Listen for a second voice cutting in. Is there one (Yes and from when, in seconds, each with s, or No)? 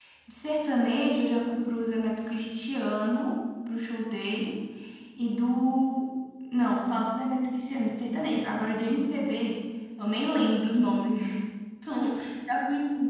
No